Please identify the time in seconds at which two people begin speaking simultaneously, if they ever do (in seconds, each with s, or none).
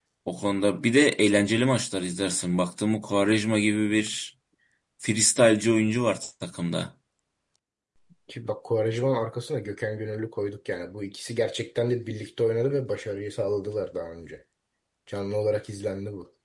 none